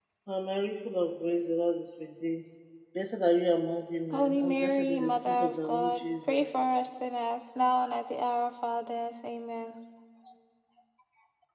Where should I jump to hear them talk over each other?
4.1 s

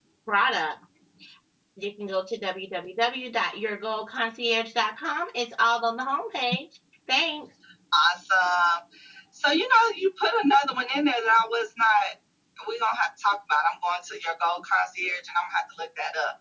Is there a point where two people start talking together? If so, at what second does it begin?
none

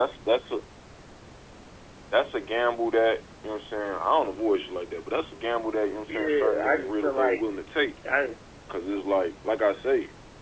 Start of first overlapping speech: 6.1 s

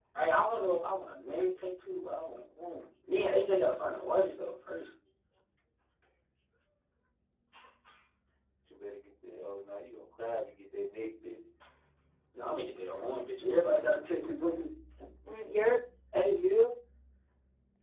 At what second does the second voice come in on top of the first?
none

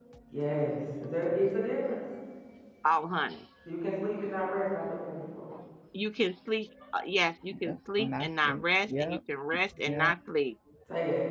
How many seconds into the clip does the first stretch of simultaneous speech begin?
7.6 s

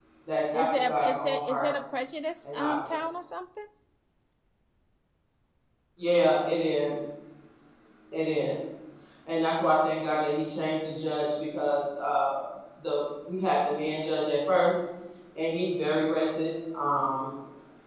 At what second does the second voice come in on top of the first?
0.5 s

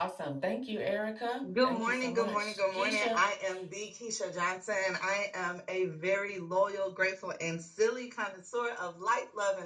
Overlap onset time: 1.4 s

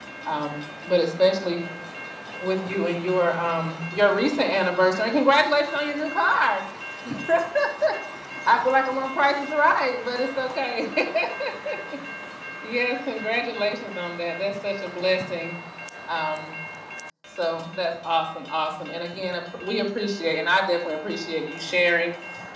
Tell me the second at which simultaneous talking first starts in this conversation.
none

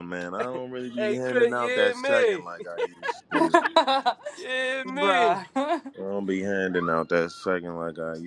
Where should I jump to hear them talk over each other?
1.0 s

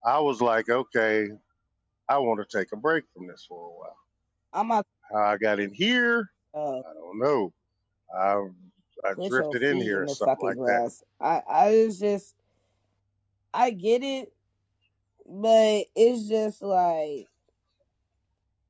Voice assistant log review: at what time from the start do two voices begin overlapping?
9.2 s

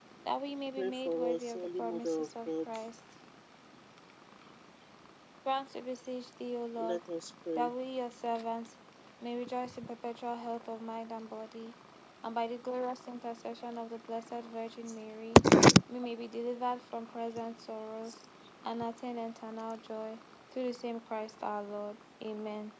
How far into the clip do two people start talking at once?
0.8 s

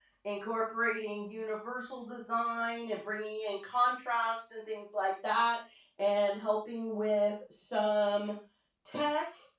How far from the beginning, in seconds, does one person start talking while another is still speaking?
none

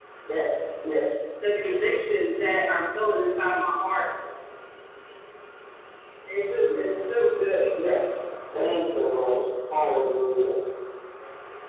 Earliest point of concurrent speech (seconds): none

